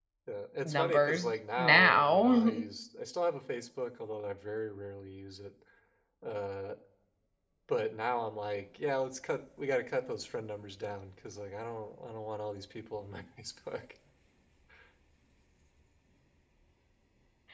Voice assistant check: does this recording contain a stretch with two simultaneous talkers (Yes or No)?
Yes